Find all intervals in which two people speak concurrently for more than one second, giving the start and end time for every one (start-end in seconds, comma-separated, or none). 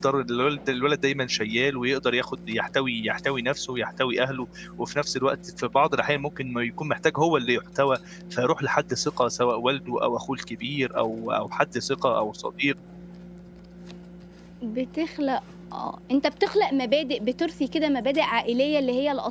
none